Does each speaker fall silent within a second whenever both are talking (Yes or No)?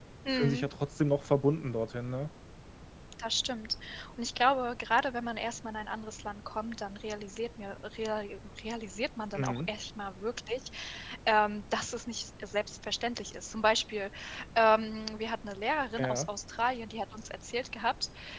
Yes